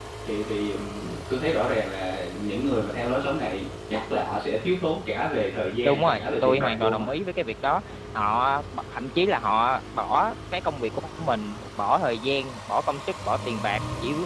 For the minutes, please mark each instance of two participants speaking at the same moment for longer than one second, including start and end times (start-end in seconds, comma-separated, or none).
5.8-7.1